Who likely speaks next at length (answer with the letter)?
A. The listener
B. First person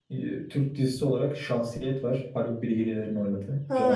A